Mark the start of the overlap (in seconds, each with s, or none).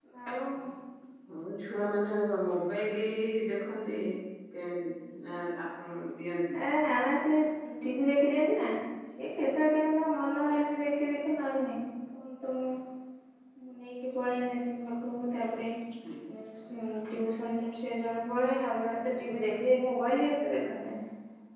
none